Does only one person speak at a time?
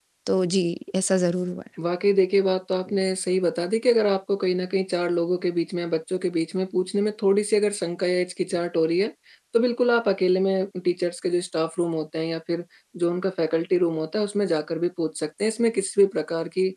Yes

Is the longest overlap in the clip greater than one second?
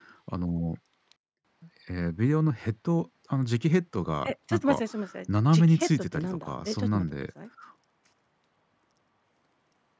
Yes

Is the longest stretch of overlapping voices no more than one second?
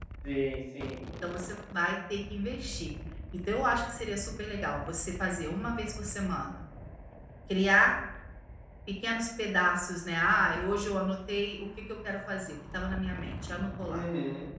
Yes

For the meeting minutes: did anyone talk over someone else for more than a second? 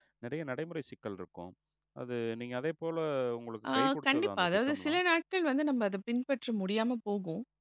Yes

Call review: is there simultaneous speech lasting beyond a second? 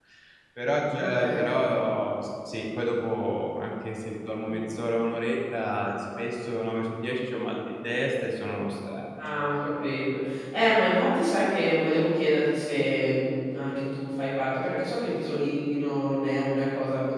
No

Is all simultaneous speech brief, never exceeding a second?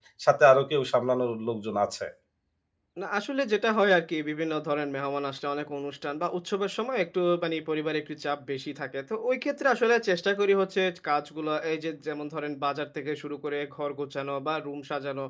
Yes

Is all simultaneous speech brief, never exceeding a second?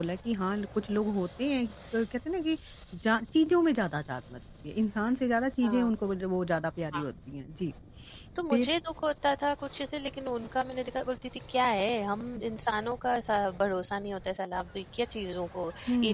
Yes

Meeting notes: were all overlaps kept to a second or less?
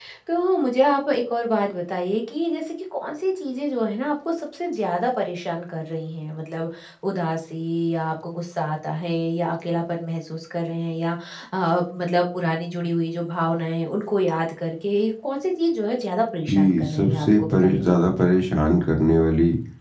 No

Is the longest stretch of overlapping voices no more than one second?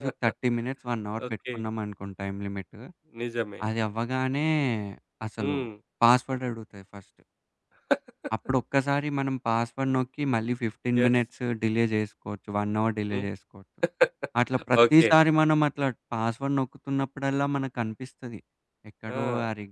Yes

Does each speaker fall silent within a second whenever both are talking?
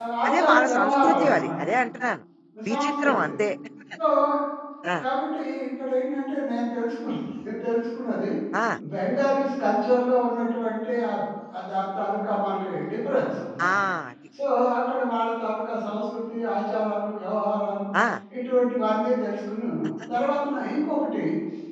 No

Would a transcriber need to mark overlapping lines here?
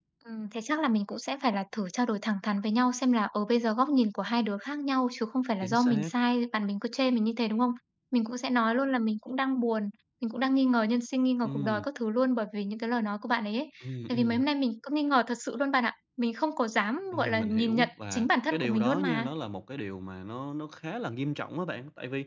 Yes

